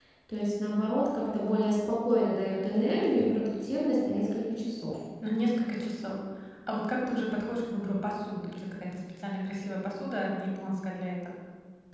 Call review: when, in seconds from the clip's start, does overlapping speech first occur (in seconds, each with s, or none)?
none